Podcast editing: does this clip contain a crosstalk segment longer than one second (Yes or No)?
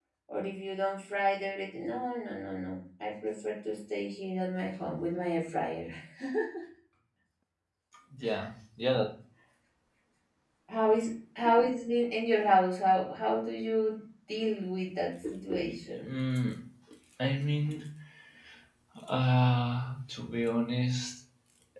No